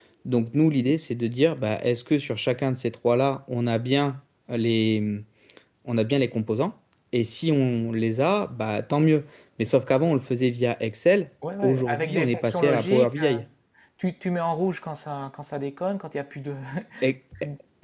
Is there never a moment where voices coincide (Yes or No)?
No